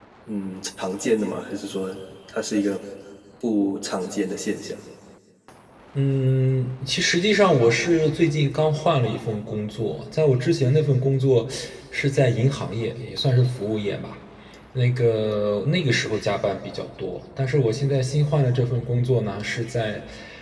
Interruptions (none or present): none